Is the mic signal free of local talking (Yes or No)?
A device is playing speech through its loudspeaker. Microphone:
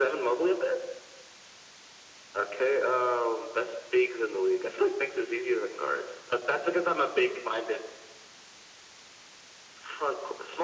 Yes